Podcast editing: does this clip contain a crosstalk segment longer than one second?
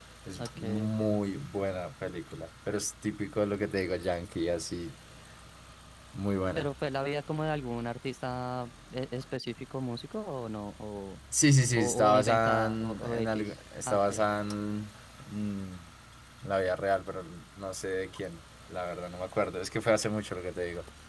Yes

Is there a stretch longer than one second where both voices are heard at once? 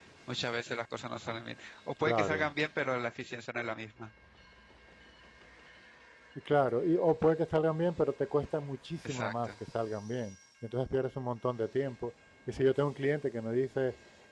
No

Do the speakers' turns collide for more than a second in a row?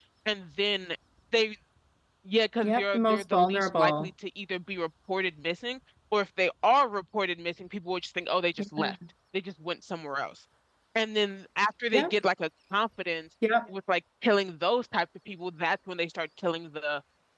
Yes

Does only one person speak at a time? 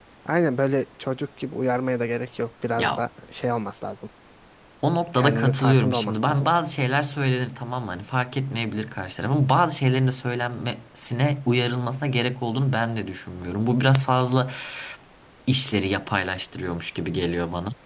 No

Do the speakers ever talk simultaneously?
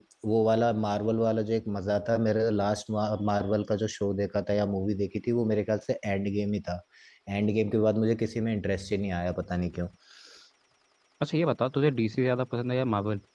No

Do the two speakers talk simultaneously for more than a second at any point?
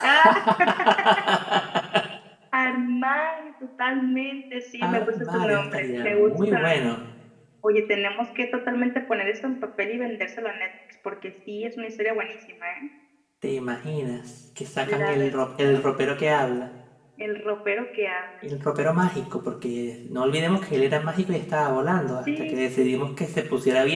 Yes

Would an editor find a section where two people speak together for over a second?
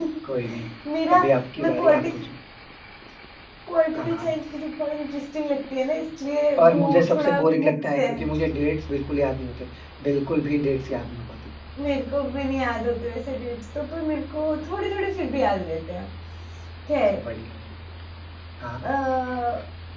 Yes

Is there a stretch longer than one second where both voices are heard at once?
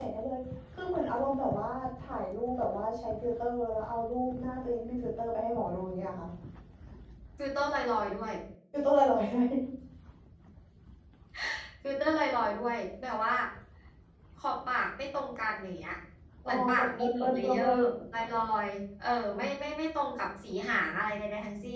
Yes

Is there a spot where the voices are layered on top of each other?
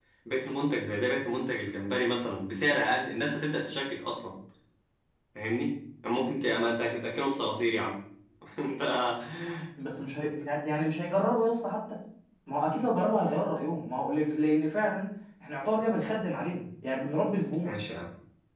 No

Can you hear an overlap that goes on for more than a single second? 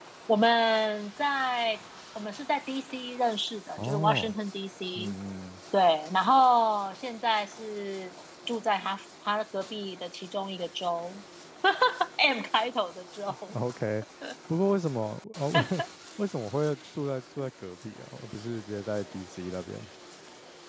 No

